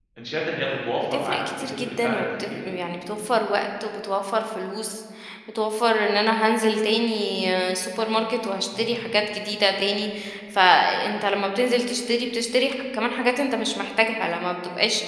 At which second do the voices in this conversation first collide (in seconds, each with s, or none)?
1.0 s